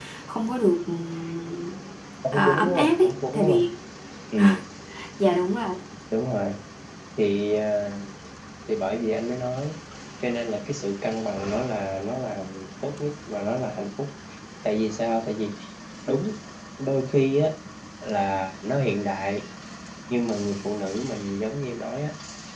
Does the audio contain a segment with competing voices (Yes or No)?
Yes